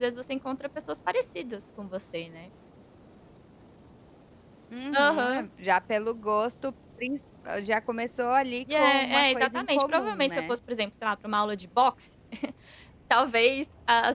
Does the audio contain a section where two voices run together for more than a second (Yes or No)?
Yes